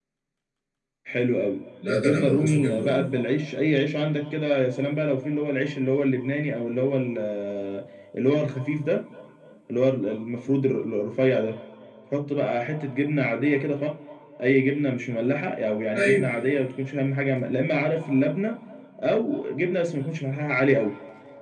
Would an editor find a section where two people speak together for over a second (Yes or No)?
Yes